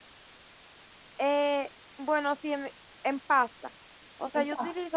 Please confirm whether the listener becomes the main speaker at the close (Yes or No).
No